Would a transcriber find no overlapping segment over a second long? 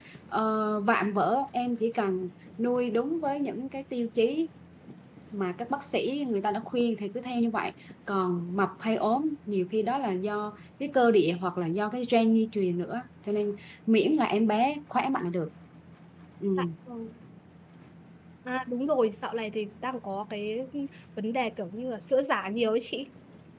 Yes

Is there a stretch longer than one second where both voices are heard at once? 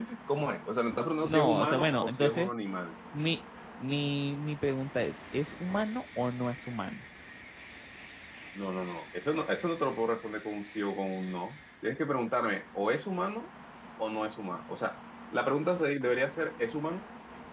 Yes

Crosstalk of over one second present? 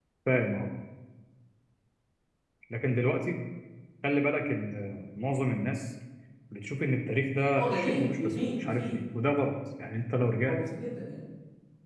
Yes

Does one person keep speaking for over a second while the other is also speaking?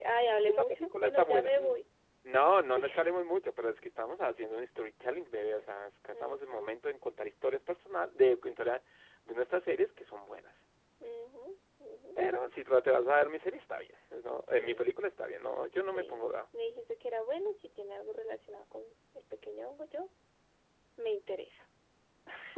Yes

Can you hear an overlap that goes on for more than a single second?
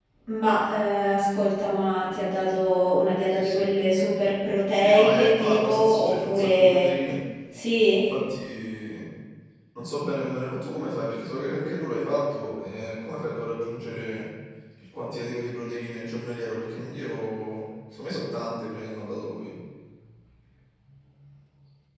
Yes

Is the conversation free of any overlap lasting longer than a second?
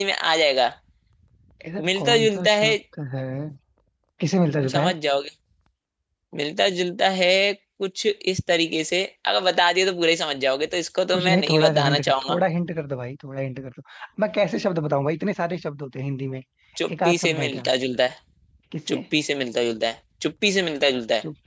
No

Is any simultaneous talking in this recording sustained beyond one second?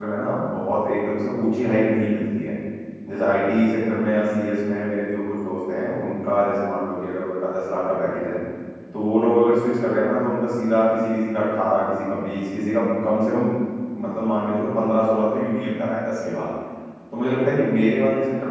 No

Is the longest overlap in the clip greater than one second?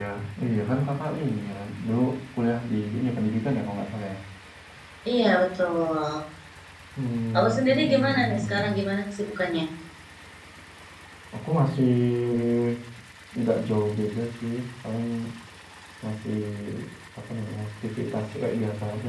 Yes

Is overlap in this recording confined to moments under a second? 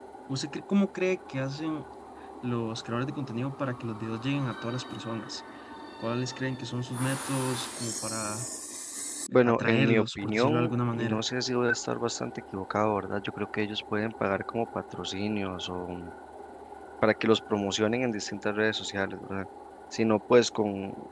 No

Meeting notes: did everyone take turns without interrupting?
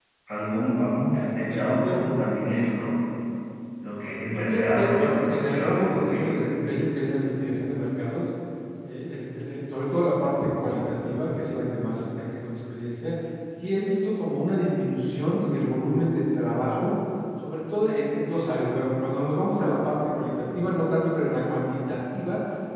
No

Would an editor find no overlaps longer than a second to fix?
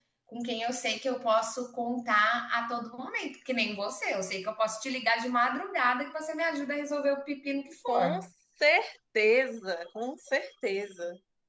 Yes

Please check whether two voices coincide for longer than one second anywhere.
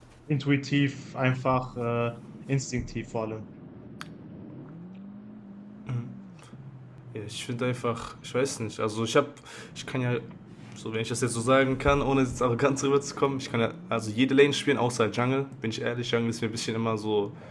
No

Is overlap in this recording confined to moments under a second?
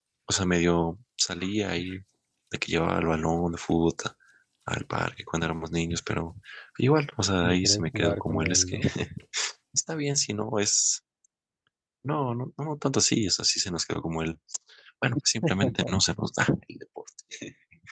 No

